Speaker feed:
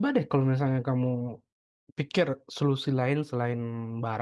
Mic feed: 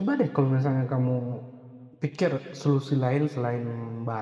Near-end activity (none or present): none